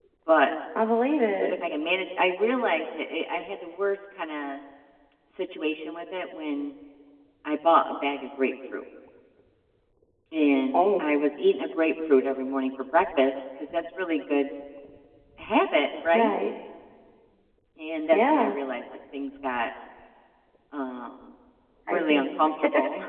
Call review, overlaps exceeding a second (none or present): none